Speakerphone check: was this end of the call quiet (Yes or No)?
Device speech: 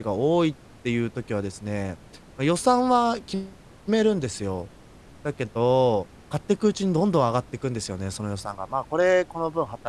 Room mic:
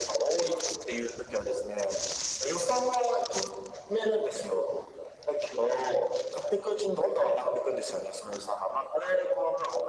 Yes